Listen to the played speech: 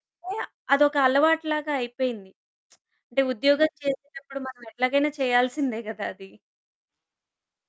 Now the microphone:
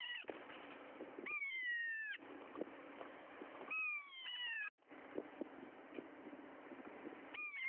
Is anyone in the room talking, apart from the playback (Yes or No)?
No